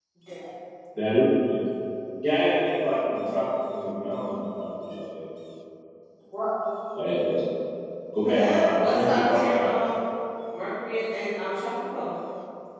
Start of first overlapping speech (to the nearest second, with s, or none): 8 s